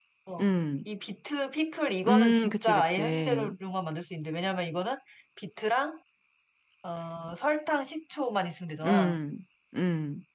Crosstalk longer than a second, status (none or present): present